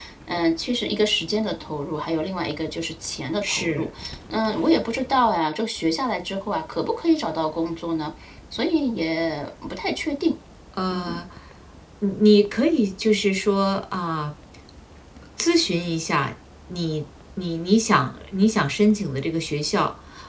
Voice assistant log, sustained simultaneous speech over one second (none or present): none